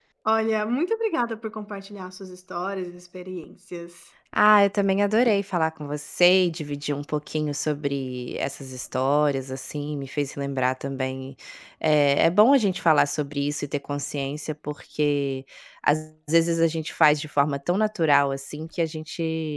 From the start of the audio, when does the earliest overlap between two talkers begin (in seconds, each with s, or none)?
none